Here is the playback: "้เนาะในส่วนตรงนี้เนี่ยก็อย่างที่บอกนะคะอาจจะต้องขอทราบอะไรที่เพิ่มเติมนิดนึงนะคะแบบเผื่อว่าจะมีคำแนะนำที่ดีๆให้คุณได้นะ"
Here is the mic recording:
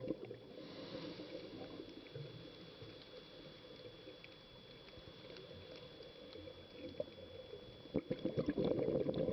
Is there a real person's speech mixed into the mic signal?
No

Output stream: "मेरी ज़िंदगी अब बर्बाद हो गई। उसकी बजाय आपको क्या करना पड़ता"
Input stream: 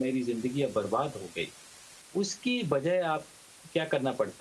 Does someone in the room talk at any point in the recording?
No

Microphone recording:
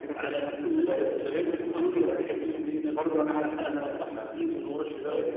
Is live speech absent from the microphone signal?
No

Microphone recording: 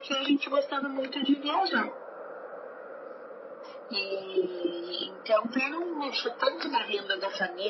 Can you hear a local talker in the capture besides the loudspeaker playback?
No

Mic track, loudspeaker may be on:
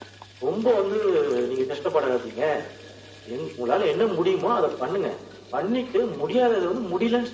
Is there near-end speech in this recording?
No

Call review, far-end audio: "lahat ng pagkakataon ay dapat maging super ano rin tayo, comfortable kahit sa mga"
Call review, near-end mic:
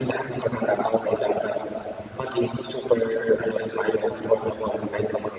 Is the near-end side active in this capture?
No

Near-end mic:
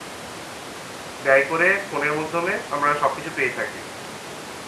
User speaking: Yes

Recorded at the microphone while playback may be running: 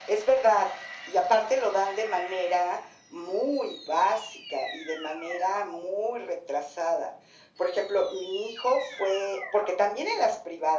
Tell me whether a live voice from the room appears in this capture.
No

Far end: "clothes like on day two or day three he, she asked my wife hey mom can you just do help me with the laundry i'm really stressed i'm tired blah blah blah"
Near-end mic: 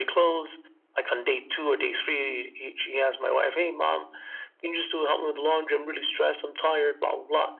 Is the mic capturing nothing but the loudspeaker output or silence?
Yes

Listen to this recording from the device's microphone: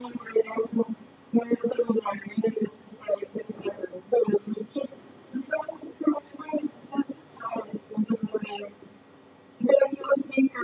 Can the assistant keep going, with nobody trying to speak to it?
Yes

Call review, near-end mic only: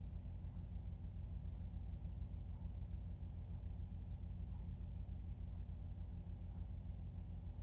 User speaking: No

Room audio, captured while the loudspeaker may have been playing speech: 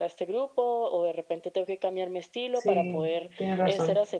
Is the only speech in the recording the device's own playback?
No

